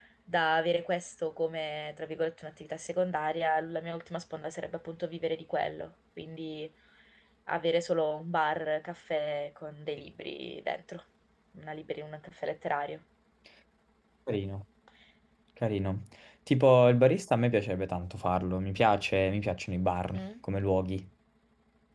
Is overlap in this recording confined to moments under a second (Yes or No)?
Yes